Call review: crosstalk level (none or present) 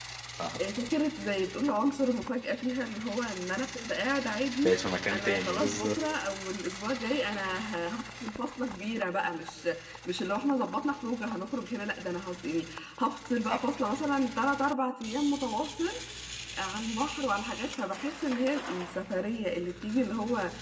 present